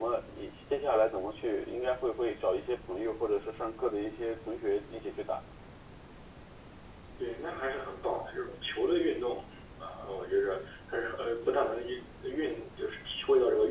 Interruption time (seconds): none

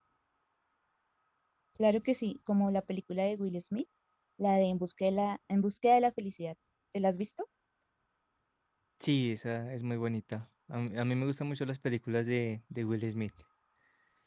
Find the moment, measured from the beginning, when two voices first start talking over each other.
none

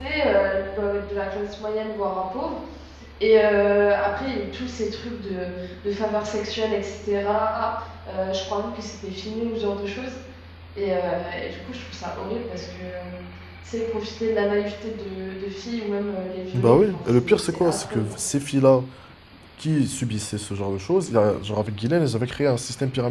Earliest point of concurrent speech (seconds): 16.5 s

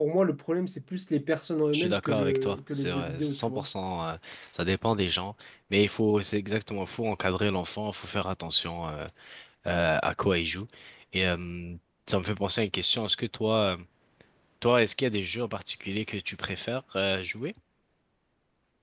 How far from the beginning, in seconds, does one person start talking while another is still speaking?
1.7 s

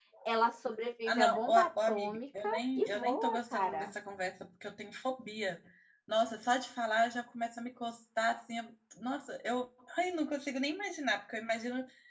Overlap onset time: 1.1 s

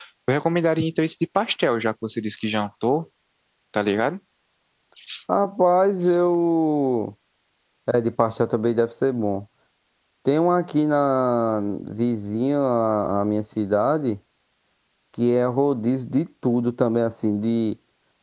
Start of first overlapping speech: none

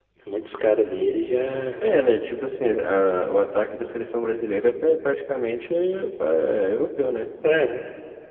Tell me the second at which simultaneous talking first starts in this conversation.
none

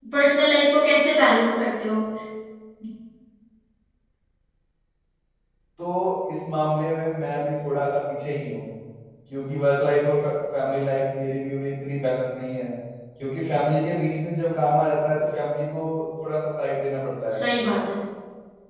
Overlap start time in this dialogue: none

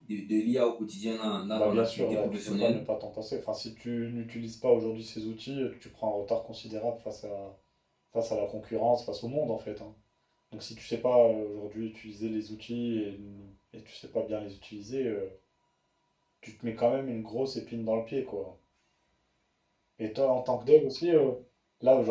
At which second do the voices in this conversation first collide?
1.5 s

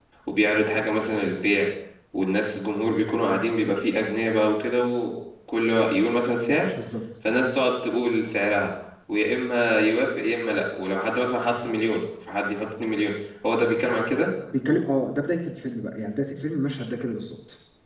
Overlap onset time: none

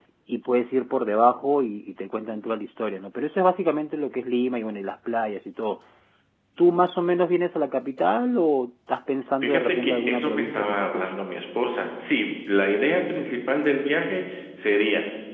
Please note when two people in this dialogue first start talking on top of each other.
9.4 s

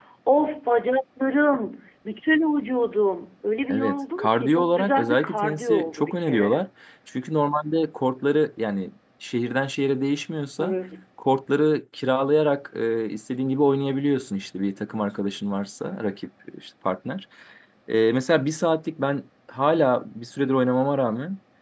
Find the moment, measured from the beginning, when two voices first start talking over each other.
3.7 s

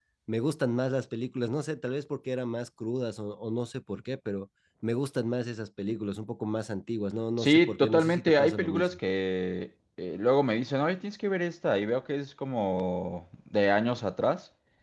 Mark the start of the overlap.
7.4 s

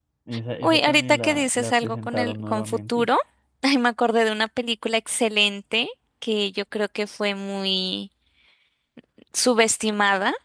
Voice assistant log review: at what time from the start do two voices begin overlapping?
0.6 s

